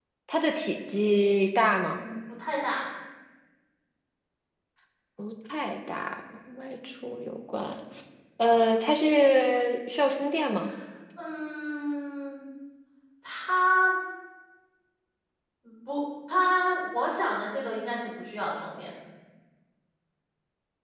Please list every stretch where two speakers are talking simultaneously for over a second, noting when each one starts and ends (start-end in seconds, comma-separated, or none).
none